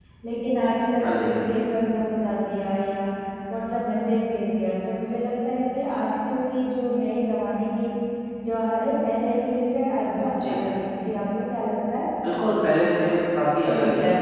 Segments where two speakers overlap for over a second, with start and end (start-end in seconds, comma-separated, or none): none